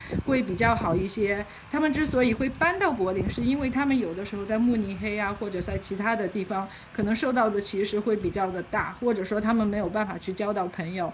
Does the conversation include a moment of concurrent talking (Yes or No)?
No